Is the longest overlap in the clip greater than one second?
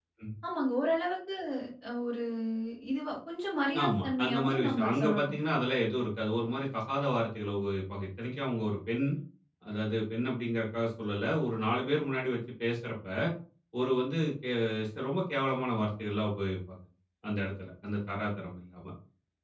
Yes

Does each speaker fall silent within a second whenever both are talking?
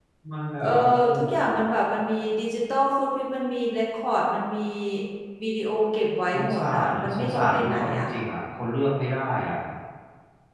No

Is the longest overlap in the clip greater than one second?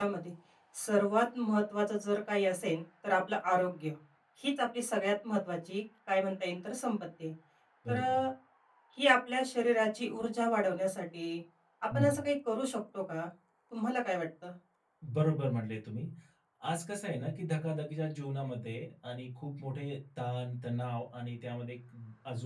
No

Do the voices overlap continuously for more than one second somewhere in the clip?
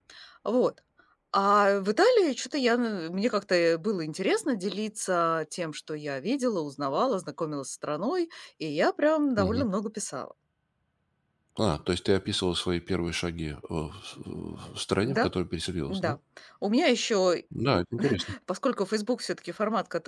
No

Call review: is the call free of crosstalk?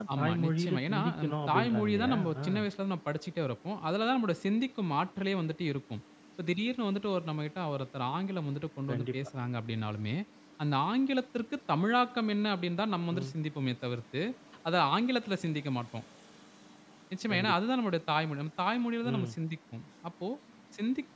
No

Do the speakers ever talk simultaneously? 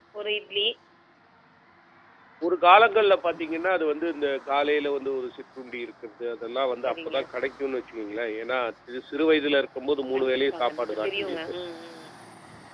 Yes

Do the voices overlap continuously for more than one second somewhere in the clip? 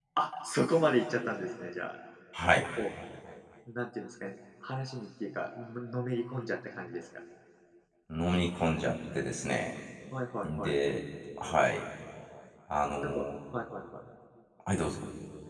No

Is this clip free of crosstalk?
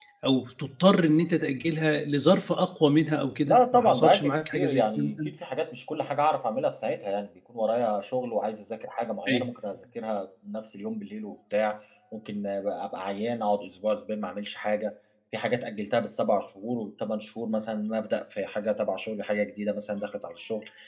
No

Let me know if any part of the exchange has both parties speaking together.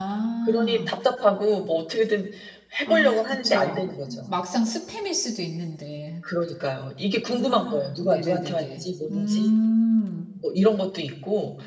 Yes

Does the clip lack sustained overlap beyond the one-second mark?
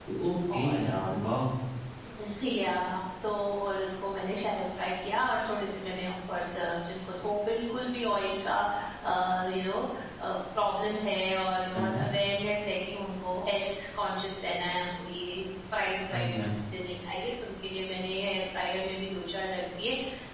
Yes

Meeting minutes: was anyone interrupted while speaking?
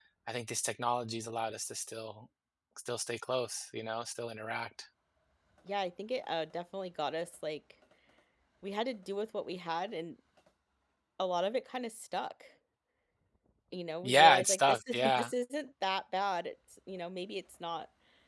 Yes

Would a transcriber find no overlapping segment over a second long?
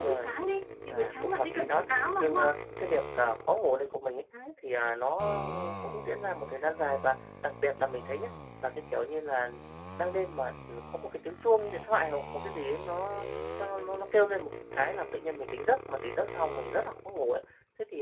No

